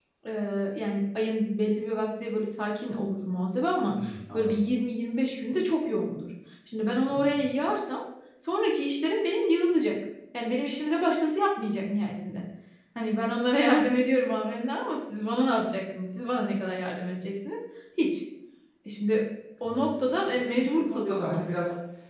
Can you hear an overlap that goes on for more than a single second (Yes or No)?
Yes